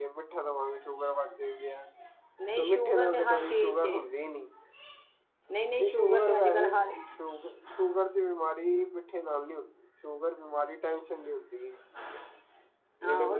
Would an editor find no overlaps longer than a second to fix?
No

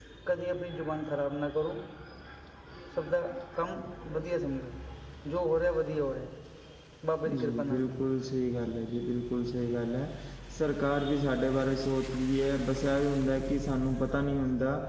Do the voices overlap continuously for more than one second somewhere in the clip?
No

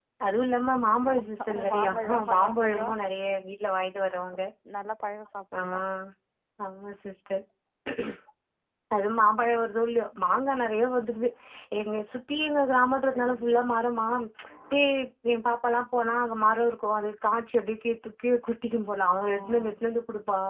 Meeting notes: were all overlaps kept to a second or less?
No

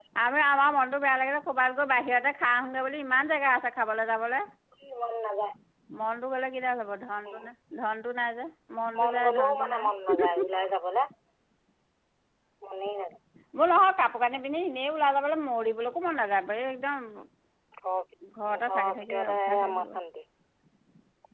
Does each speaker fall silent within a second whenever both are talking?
No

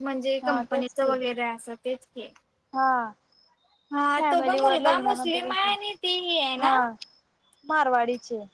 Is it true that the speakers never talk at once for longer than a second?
No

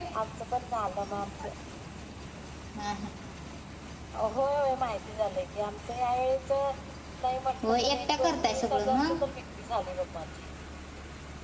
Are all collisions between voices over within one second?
No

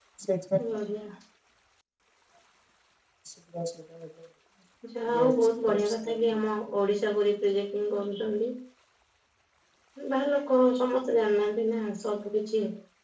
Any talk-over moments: Yes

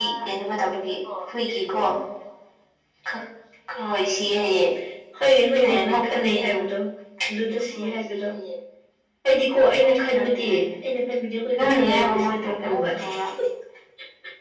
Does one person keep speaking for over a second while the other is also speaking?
Yes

